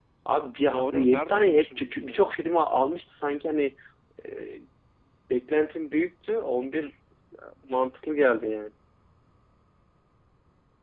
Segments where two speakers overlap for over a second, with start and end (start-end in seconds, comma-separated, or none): 0.7-2.4